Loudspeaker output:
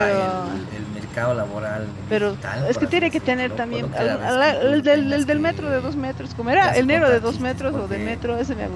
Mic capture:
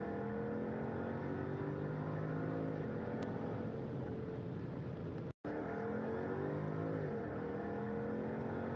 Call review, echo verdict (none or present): none